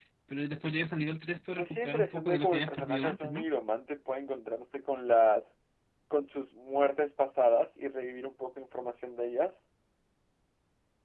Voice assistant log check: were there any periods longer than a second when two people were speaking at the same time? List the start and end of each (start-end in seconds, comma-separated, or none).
1.6-3.5